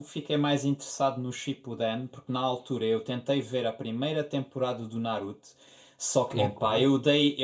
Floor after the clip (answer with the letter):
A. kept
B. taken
A